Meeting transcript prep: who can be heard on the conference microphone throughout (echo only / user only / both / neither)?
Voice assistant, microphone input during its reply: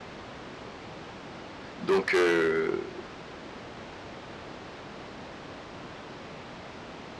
user only